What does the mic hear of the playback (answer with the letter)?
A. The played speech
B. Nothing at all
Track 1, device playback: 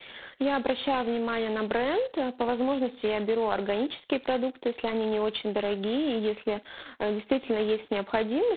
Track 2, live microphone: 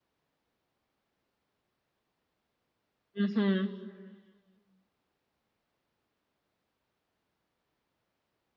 B